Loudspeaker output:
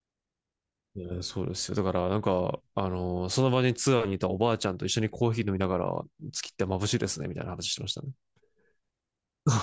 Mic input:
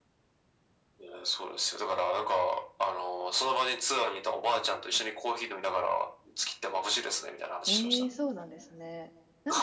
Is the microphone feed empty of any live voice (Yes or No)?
No